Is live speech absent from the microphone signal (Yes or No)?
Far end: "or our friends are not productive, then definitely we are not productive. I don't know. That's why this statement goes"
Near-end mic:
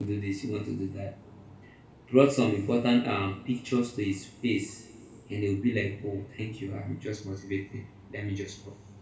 No